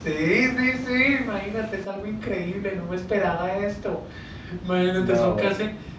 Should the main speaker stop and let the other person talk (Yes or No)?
No